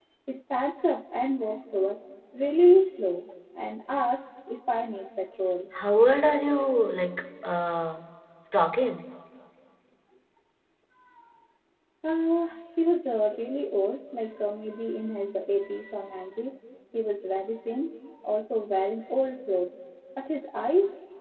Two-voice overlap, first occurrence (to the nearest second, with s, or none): none